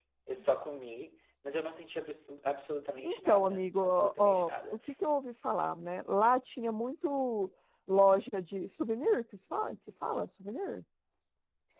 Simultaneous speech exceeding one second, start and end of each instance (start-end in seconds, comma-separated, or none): 3.0-4.5